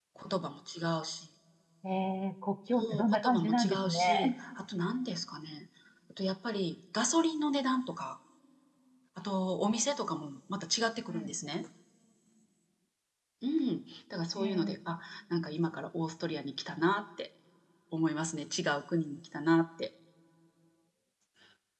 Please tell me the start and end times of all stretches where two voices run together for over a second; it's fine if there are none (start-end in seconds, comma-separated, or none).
2.8-4.3